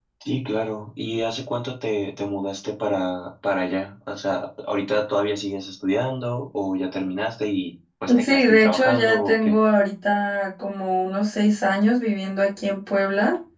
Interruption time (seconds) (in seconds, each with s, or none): 8.1 s